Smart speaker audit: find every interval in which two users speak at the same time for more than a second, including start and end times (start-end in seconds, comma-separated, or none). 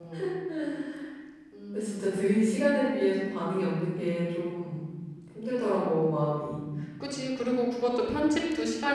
none